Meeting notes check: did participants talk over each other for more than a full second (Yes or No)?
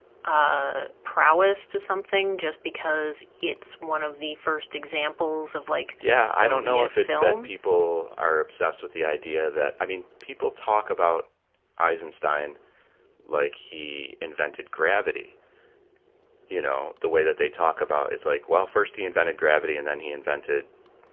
Yes